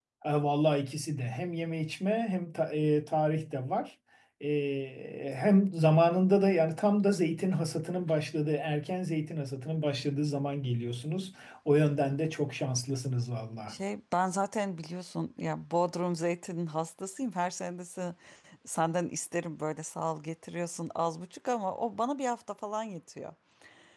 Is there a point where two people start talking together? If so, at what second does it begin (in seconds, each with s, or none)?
none